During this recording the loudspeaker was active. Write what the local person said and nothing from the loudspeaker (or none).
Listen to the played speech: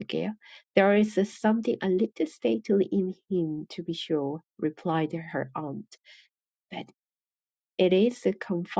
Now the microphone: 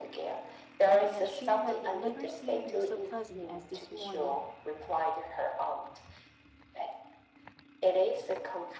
and that she had never seen him so pleasant as this morning.